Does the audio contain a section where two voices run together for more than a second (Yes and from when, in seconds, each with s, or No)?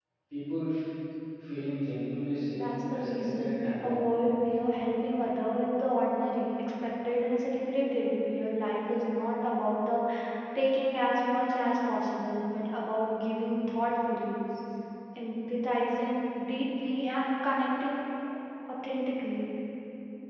Yes, from 2.5 s